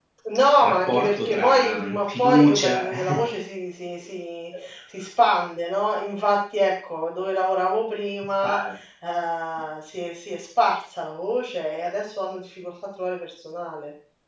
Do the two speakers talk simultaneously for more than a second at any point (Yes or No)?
Yes